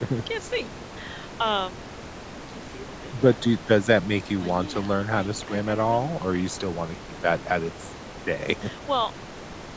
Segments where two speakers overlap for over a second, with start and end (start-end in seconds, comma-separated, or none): 4.4-6.1